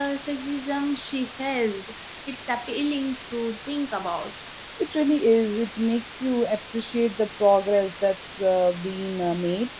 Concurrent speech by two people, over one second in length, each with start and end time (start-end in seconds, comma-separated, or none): none